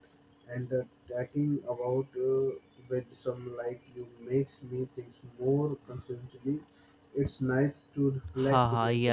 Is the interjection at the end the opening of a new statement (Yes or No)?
Yes